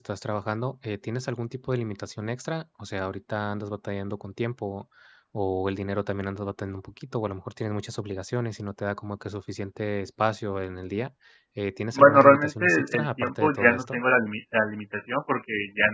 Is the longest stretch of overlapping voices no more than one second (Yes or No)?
No